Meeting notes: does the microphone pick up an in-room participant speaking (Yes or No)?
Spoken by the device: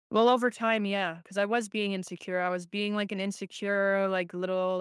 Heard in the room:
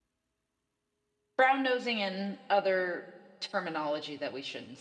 Yes